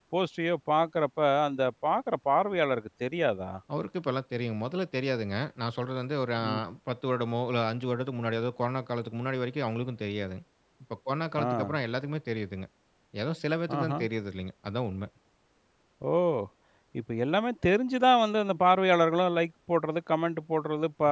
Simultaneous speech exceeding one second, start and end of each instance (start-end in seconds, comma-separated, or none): none